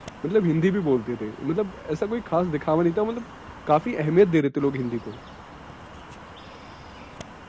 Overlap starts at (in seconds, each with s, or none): none